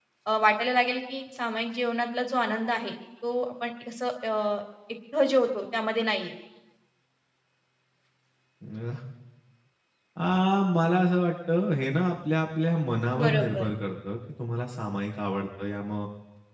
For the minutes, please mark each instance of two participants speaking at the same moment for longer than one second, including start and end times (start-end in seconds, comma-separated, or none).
none